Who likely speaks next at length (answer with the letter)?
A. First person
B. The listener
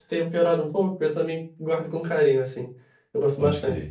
B